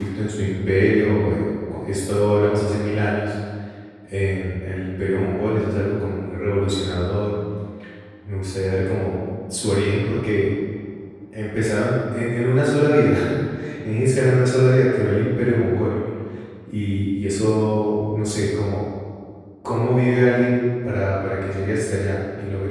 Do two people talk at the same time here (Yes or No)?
No